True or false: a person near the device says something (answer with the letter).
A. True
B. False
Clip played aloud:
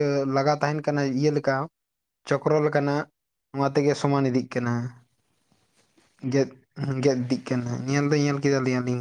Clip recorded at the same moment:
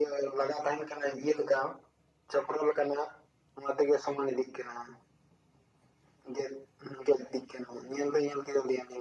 B